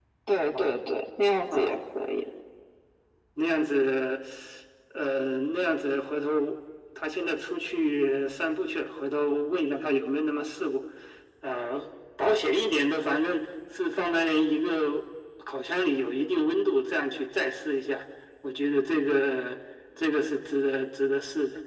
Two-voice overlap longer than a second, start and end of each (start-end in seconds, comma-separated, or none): none